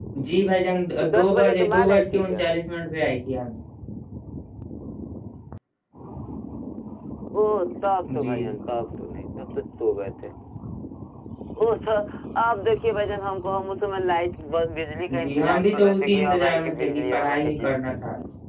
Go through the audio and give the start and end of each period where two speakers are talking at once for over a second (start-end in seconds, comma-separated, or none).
1.1-2.4, 15.2-17.7